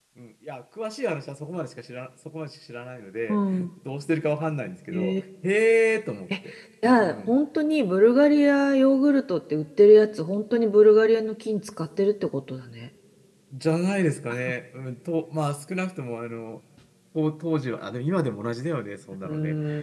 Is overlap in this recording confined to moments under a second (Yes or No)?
Yes